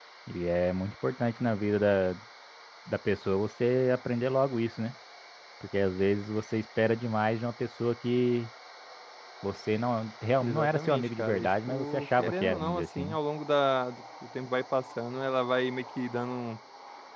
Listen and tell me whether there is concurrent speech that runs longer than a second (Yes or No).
Yes